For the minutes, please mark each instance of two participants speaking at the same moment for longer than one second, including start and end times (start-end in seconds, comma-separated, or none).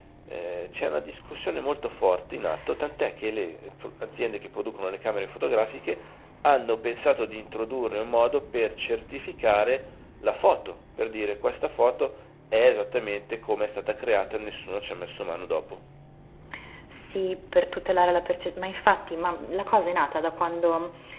none